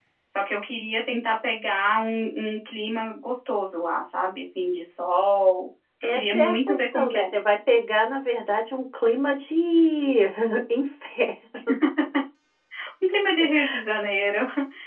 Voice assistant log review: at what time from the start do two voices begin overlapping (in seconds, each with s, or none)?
6.0 s